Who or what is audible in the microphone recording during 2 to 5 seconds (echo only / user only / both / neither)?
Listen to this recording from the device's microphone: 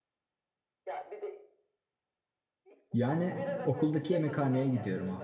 both